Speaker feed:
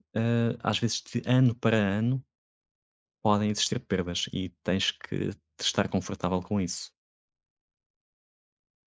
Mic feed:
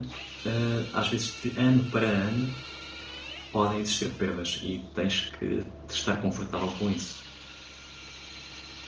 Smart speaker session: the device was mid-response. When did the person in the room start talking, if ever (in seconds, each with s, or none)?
none